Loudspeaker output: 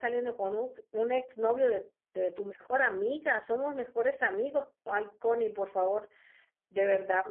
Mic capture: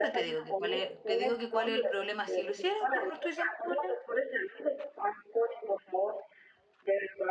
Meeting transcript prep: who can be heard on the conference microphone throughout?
both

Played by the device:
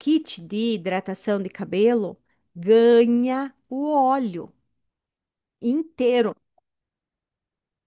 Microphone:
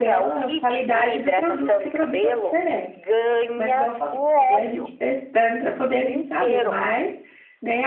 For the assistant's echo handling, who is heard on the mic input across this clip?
both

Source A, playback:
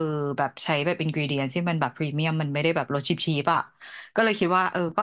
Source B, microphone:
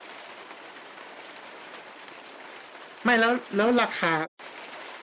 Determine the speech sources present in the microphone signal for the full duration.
user only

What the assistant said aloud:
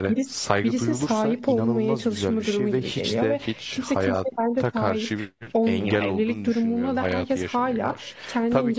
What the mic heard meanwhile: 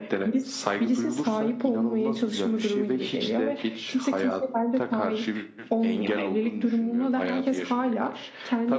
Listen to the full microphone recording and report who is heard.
echo only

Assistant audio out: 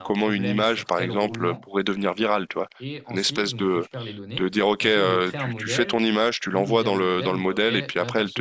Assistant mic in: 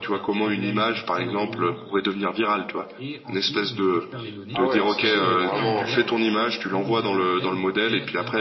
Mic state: both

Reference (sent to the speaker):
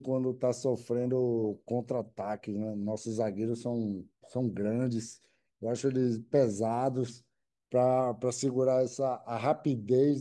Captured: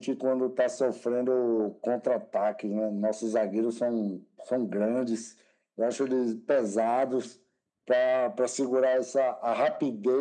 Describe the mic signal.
echo only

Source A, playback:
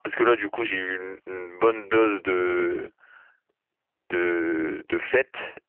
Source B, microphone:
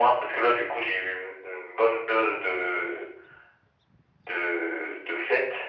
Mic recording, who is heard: echo only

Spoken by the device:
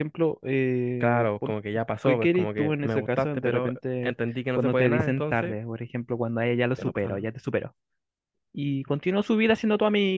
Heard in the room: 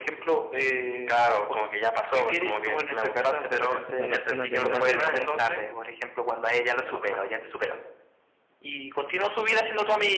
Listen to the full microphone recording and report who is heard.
both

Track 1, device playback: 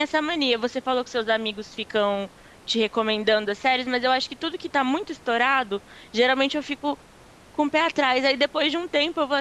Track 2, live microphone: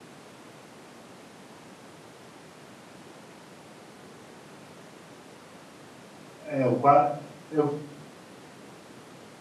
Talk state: user only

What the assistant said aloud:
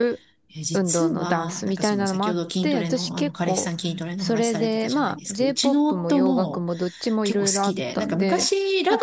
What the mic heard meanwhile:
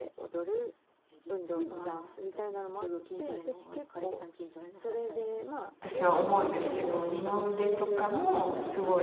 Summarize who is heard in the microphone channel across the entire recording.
both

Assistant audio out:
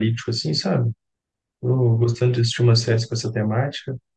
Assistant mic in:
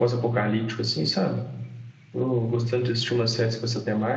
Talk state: echo only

